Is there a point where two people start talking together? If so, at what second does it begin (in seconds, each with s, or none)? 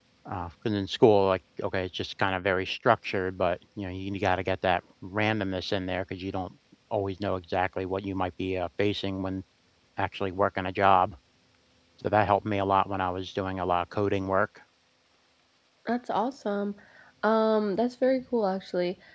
none